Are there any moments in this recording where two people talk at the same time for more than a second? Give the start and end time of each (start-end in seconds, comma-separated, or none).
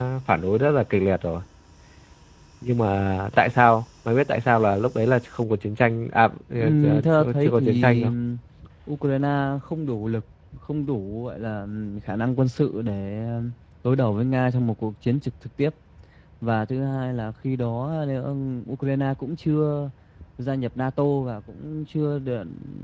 6.6-8.1